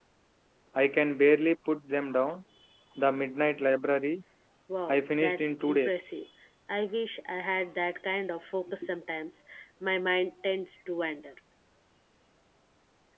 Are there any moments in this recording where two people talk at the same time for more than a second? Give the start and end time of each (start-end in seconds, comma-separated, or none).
4.9-6.2